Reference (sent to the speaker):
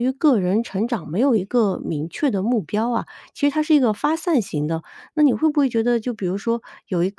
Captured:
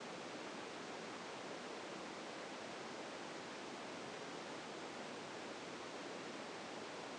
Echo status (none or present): none